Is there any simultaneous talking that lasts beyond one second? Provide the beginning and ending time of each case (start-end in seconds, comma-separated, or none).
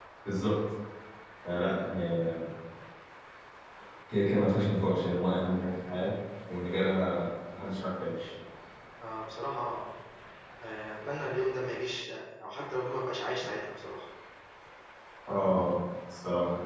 none